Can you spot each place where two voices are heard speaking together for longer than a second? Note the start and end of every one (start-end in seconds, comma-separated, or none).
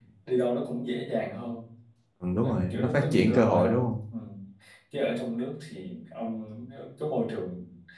2.4-3.9